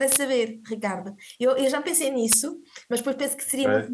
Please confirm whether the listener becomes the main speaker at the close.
No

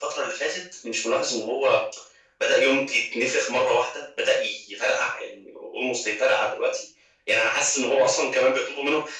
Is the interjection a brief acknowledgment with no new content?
Yes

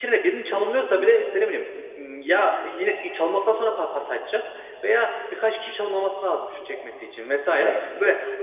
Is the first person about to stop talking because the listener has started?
No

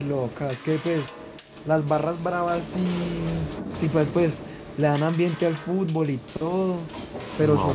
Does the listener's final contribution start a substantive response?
Yes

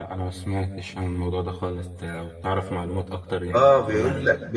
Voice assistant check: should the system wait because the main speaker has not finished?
No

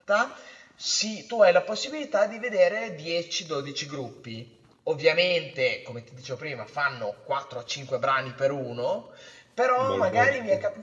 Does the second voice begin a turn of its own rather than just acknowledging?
No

